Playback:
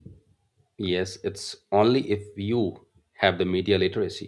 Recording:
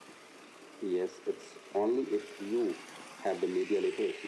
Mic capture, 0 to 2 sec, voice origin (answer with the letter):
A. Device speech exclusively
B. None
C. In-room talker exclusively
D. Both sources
A